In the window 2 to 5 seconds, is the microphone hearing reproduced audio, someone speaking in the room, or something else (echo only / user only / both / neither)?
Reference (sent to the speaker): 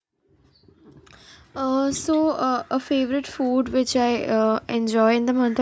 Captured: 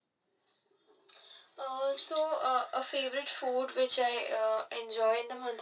echo only